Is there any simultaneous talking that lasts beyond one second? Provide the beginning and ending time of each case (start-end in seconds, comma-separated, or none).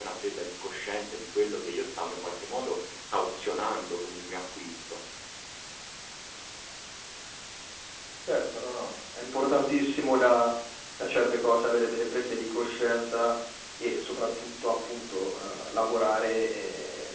none